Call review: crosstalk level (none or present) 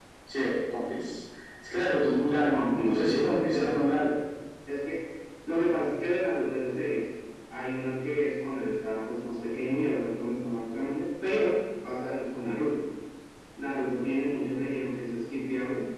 present